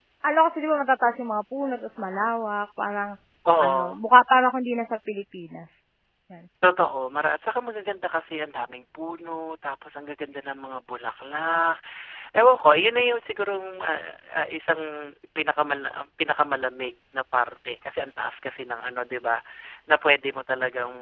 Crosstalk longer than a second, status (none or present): none